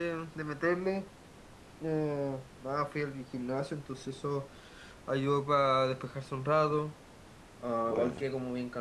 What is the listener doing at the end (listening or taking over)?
listening